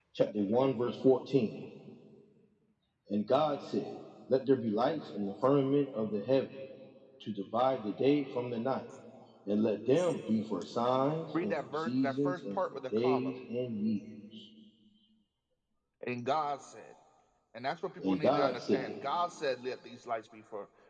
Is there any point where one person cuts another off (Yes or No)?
Yes